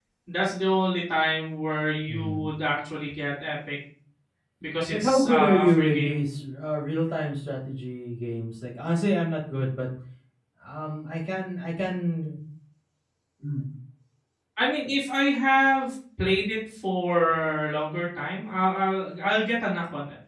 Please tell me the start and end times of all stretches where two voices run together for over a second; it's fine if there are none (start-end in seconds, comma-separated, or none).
4.9-6.2